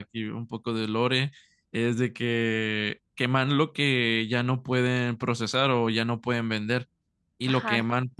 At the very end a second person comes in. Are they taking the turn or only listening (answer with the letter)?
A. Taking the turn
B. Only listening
B